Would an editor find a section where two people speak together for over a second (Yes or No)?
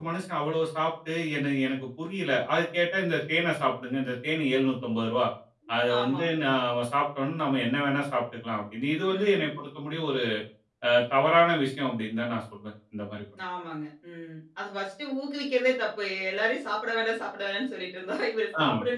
No